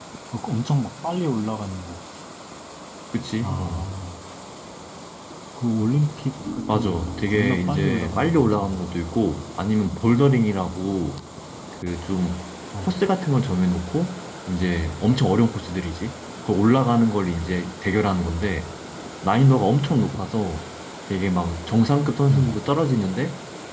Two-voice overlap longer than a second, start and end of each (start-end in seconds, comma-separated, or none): 6.7-8.8